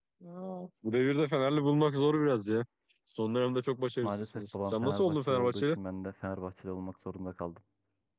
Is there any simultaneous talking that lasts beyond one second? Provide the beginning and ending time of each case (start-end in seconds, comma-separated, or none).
4.0-5.8